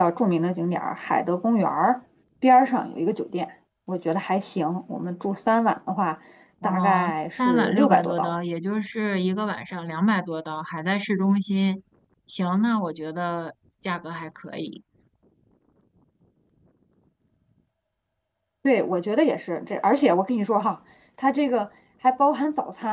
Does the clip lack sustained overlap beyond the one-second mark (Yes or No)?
No